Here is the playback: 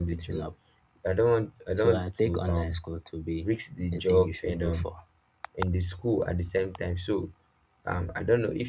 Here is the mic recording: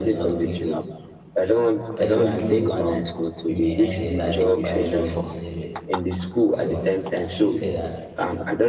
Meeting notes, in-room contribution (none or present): present